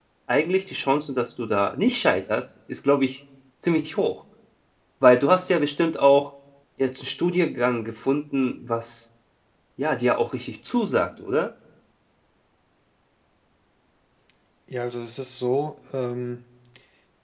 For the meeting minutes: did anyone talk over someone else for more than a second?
No

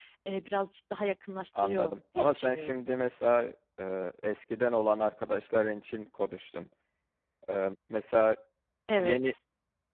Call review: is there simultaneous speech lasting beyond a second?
Yes, from 1.6 s

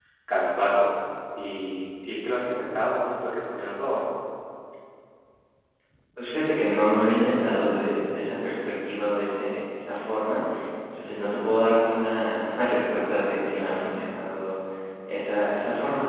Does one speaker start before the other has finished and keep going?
No

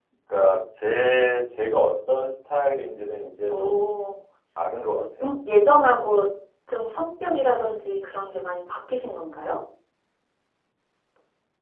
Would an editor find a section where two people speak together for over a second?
No

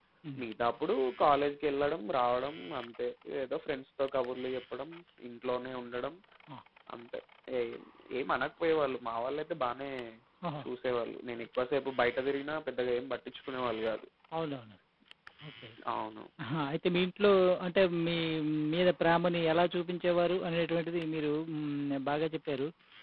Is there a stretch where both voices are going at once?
No

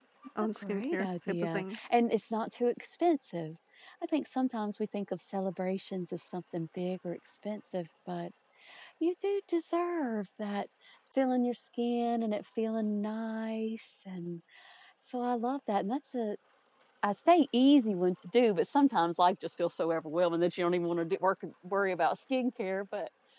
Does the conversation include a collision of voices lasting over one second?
Yes, from 0.6 s

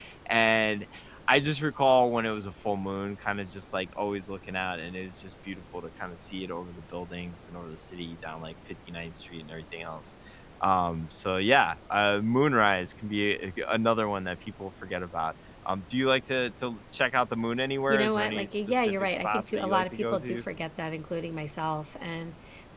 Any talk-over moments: Yes, from 17.9 s

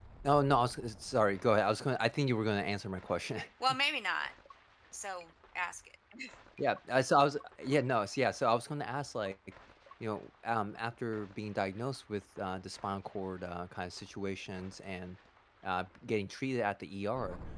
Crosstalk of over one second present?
No

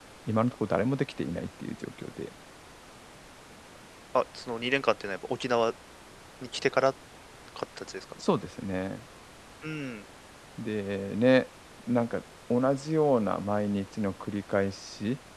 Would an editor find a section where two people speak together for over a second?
No

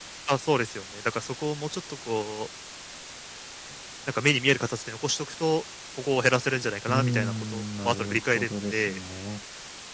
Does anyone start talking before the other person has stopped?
Yes, from 6.9 s

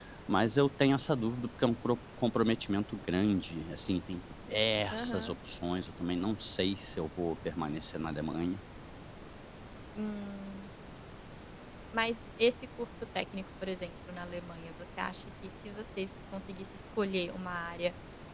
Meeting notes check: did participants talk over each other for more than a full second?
No

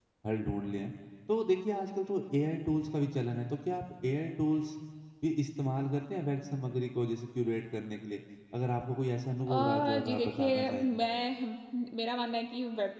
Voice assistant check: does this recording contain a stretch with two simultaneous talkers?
Yes, from 9.4 s

